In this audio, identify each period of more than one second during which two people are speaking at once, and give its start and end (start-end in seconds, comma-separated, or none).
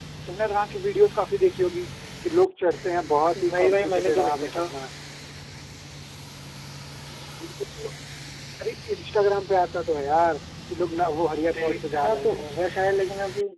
3.4-4.6, 10.9-12.5